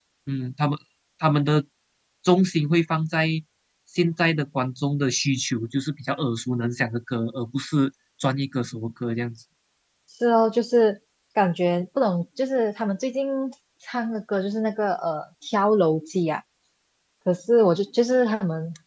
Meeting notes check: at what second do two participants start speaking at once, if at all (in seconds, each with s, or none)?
none